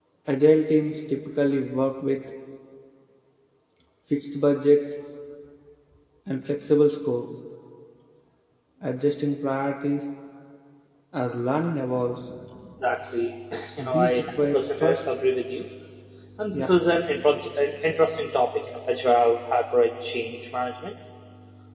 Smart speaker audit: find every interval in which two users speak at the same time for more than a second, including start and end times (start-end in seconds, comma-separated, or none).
13.8-15.0